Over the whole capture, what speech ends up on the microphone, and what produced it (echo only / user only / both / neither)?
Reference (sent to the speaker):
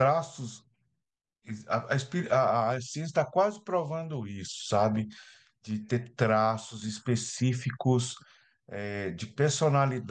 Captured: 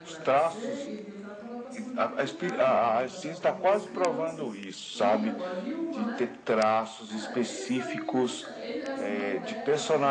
both